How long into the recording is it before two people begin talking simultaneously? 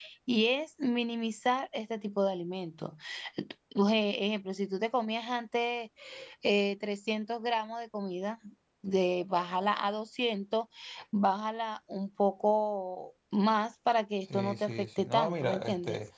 14.3 s

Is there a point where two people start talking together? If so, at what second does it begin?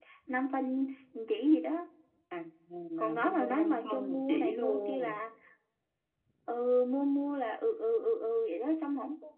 3.0 s

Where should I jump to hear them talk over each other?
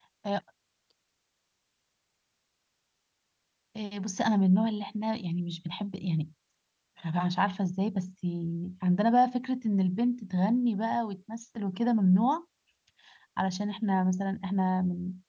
none

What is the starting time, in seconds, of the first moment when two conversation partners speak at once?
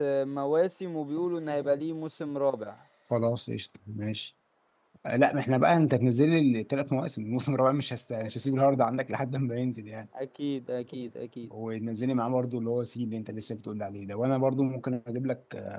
none

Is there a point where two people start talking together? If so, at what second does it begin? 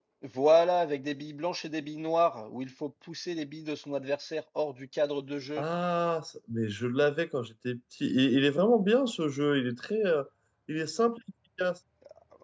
none

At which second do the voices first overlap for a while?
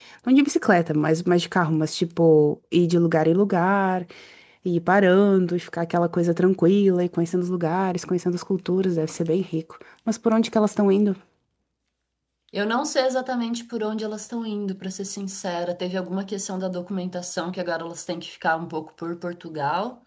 none

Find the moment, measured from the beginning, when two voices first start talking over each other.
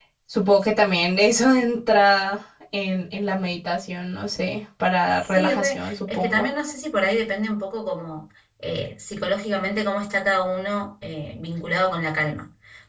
5.2 s

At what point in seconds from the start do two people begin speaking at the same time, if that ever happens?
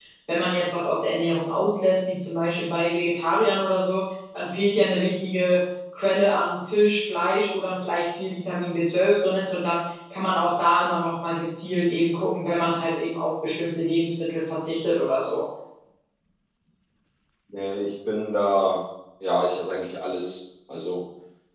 none

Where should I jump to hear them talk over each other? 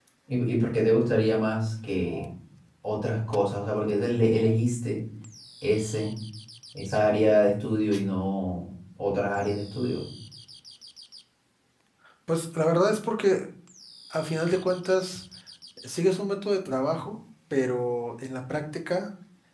none

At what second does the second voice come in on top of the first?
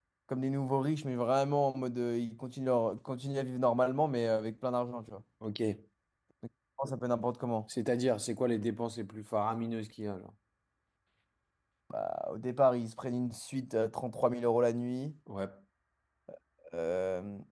none

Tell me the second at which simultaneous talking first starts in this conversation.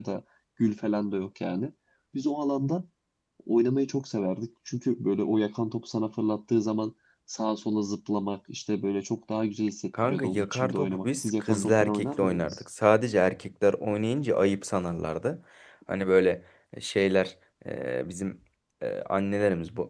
9.9 s

